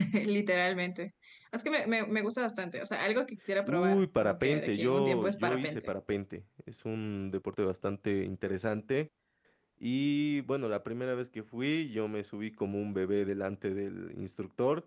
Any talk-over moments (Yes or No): Yes